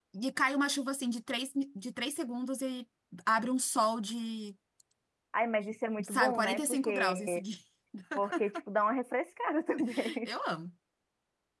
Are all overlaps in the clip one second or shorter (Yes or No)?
No